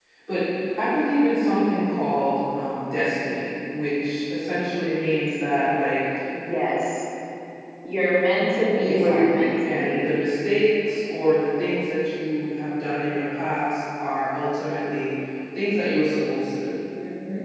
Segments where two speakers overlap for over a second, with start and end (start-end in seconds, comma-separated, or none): 8.8-10.0